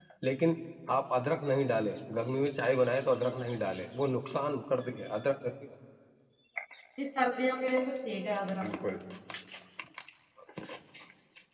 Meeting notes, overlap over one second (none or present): none